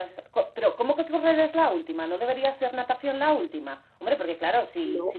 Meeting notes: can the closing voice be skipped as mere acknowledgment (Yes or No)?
Yes